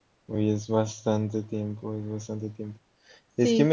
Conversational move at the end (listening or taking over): listening